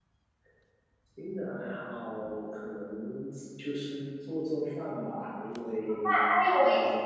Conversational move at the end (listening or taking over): taking over